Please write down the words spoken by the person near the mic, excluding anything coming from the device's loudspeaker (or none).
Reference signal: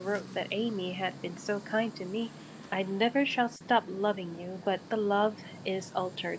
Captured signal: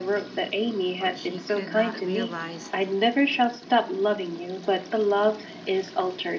for she could not realize